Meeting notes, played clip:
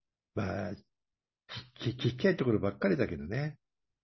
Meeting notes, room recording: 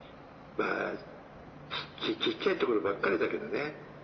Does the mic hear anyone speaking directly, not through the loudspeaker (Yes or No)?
No